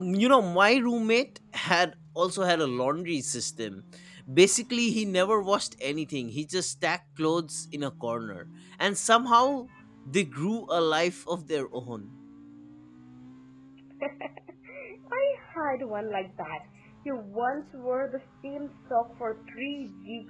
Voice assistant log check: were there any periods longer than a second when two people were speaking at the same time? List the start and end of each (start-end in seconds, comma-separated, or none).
none